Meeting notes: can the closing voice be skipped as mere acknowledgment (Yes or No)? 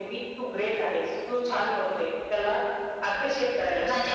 No